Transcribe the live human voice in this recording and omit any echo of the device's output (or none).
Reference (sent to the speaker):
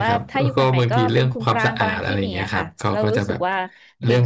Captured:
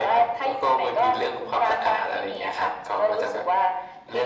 none